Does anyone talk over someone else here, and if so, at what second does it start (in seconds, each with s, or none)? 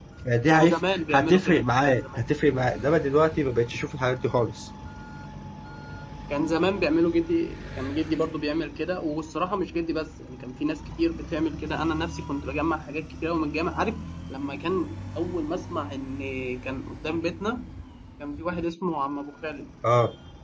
0.5 s